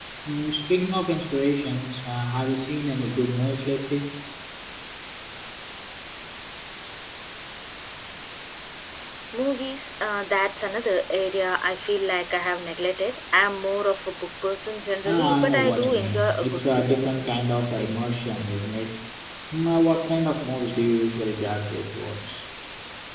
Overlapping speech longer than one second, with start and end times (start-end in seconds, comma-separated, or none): 15.0-17.0